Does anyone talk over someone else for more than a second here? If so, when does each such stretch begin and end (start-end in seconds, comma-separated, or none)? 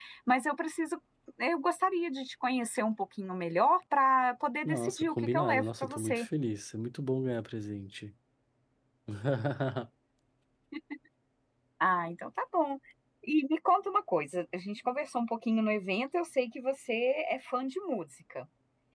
4.7-6.3